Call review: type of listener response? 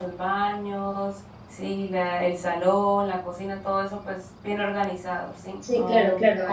taking over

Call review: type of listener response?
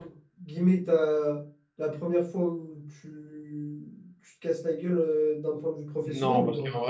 taking over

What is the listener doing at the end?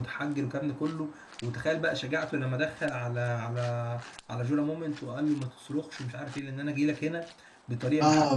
taking over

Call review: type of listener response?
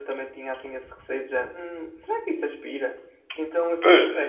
listening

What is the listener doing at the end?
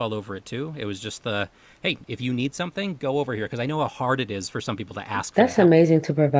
taking over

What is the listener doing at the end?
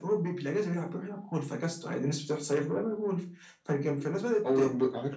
taking over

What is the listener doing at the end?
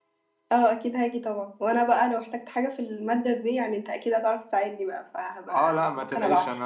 taking over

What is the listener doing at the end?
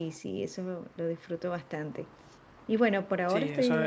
taking over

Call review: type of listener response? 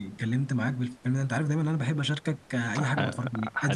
taking over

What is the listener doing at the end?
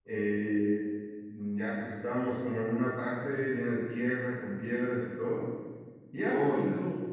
listening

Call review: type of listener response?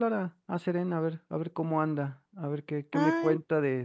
listening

